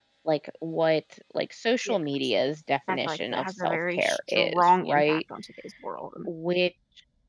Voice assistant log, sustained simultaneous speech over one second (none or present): present